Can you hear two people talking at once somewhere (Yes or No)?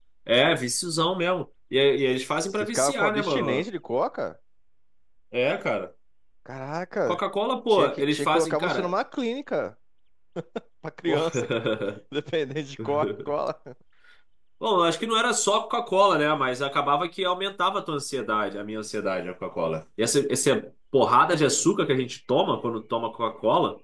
Yes